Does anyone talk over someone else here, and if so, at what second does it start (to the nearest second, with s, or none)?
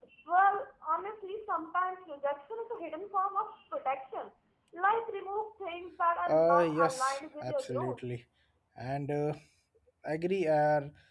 6 s